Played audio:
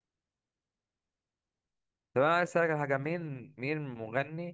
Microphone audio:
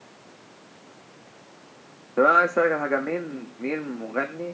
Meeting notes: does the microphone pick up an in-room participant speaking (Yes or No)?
No